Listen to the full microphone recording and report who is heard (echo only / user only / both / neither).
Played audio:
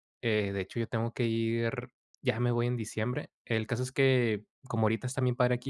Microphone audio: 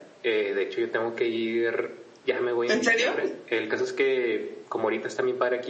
both